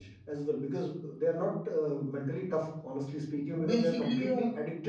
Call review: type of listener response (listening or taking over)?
listening